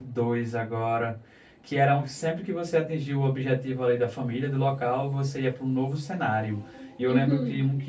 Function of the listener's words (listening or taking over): listening